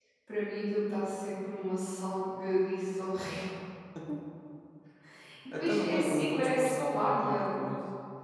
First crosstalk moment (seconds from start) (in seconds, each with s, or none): 5.5 s